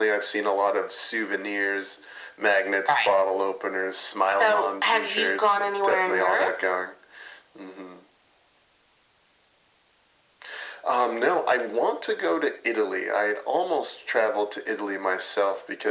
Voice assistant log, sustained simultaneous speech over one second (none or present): present